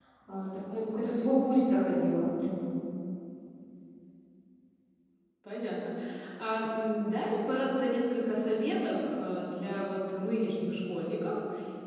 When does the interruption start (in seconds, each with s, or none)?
none